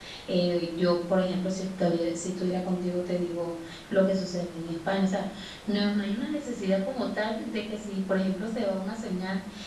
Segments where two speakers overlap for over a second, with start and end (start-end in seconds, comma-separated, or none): none